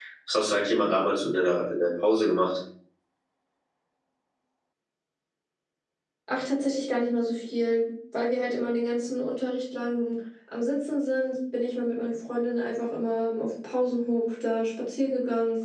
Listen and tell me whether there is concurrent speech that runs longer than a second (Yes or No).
No